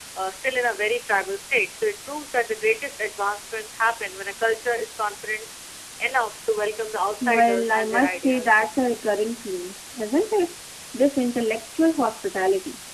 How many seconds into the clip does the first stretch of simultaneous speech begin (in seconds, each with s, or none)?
7.2 s